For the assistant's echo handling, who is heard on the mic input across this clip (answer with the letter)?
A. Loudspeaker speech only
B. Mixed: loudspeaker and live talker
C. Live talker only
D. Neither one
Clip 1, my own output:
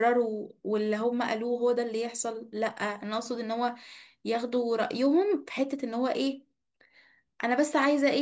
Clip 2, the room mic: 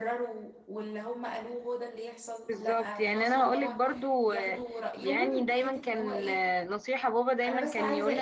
B